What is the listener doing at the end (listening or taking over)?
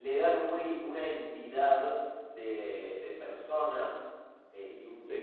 listening